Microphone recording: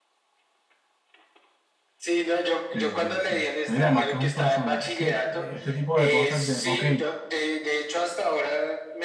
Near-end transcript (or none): Sí, sí, sí. No, y además que es un personaje, es que eh, este tipo de cosas de, ok,